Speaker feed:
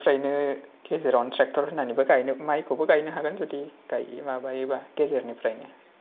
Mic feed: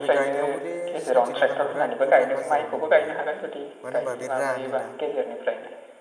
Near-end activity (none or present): present